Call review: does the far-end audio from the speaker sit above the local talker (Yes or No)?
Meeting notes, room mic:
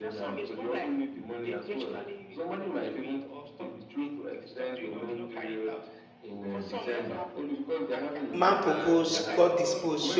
No